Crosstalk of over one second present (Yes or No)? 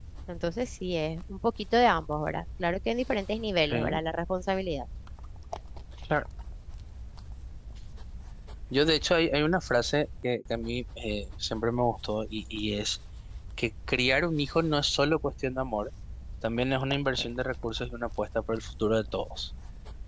No